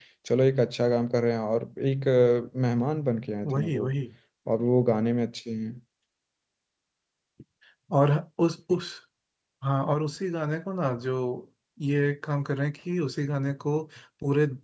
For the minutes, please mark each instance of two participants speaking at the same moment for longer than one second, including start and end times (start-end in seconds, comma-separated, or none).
none